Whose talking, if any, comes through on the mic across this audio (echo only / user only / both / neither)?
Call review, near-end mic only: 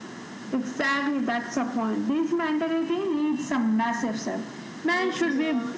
both